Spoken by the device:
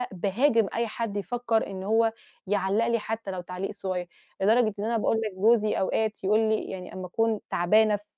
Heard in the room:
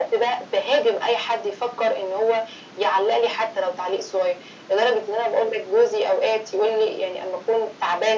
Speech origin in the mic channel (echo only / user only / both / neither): echo only